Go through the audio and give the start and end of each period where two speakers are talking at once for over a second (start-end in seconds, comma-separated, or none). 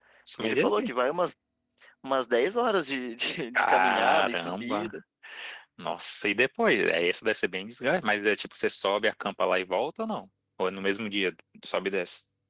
3.6-4.9